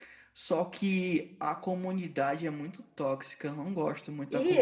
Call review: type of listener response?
taking over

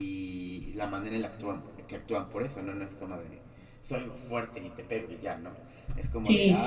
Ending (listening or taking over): listening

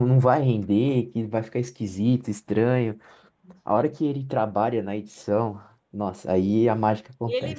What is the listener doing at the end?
taking over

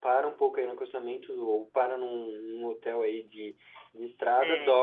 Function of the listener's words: listening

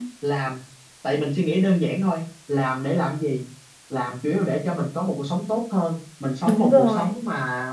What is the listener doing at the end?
listening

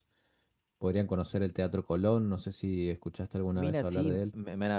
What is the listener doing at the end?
taking over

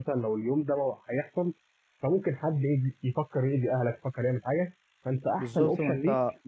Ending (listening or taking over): taking over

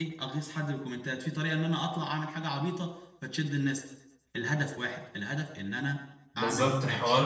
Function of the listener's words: taking over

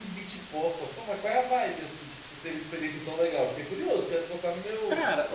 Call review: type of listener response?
taking over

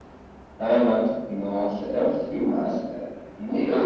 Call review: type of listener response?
taking over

